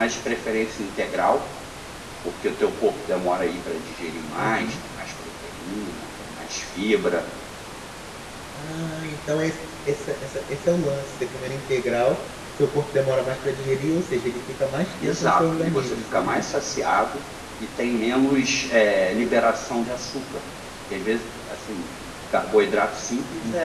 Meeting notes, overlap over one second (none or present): present